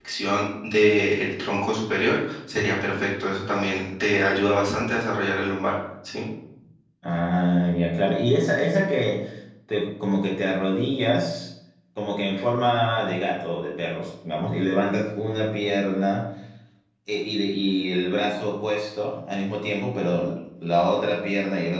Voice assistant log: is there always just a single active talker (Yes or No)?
Yes